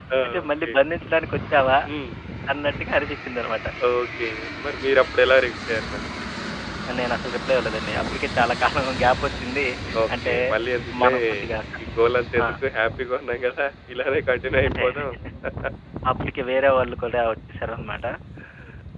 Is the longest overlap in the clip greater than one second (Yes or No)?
No